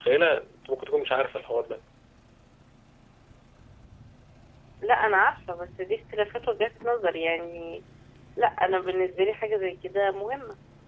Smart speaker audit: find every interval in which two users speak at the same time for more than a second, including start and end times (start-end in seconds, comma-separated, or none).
none